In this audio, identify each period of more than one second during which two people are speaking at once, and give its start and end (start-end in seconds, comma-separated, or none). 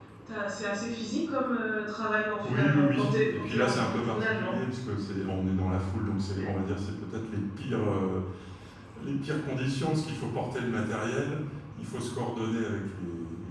2.4-4.5